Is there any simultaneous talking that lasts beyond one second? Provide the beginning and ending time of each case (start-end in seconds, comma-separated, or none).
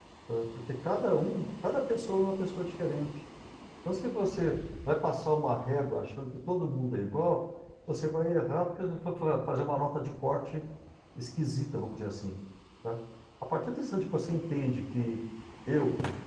none